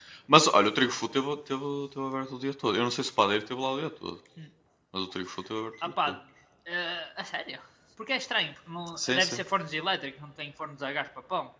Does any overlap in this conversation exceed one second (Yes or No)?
No